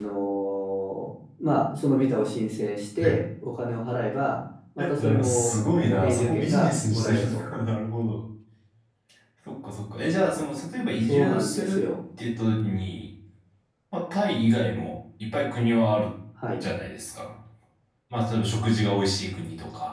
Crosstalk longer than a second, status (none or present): present